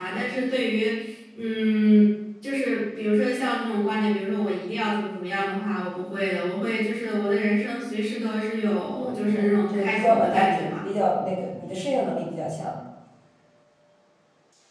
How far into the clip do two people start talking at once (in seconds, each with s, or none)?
9.0 s